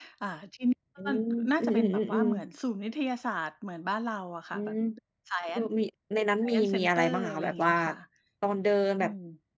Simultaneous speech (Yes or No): Yes